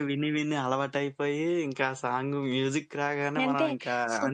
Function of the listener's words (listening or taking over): taking over